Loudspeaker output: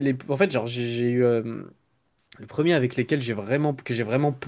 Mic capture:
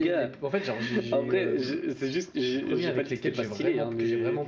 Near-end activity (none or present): present